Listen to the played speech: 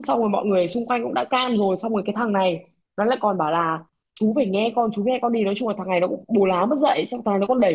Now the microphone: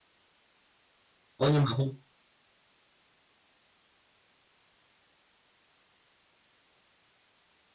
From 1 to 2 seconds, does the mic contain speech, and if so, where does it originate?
user only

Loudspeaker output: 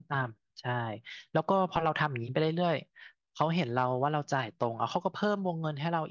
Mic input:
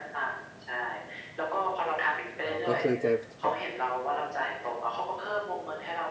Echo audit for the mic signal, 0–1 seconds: echo only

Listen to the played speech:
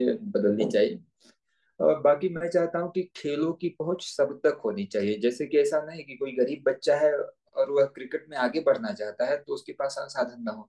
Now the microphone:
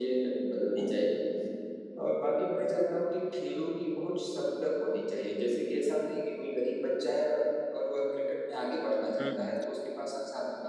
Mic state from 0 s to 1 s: echo only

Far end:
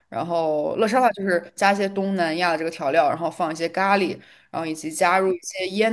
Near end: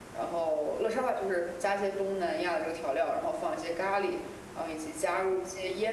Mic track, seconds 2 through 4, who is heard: echo only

